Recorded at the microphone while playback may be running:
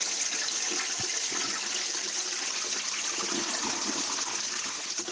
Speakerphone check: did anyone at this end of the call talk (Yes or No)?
No